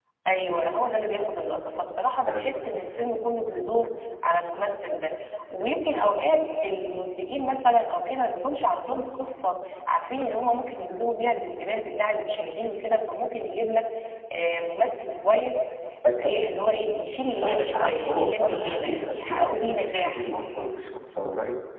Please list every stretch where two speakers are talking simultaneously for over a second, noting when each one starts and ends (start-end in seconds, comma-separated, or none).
17.3-20.2